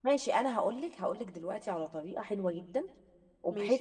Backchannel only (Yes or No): Yes